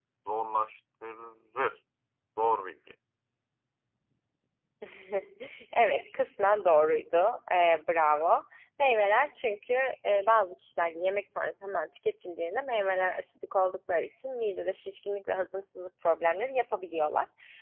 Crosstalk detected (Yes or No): No